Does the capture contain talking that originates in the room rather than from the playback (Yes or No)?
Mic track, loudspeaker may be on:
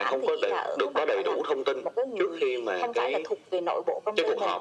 No